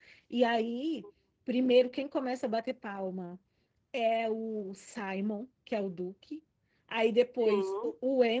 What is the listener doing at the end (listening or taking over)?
listening